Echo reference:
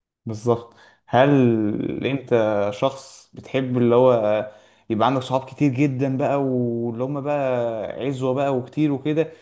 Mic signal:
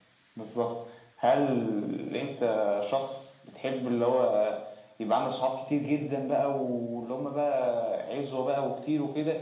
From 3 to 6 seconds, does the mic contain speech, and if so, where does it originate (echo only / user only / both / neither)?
echo only